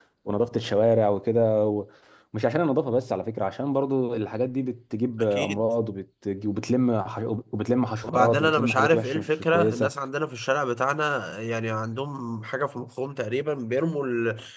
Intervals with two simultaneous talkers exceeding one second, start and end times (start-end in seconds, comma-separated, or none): 8.0-9.9